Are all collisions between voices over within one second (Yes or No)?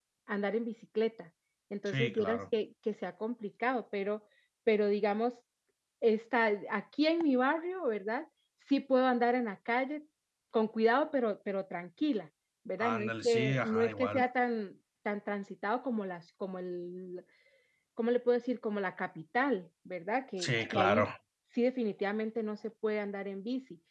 No